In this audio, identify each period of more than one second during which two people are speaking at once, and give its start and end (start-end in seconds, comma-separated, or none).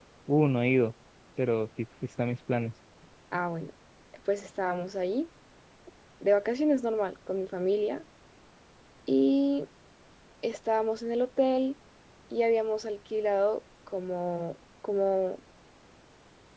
none